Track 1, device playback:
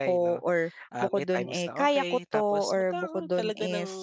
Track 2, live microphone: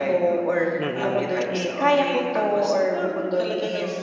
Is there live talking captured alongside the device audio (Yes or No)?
Yes